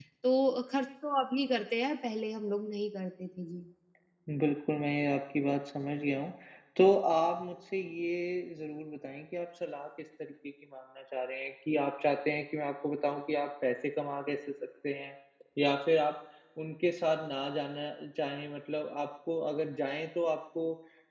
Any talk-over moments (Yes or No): No